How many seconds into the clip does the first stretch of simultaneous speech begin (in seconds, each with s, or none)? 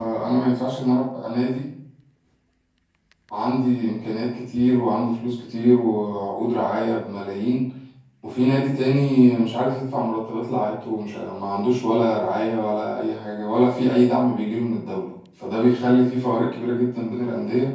none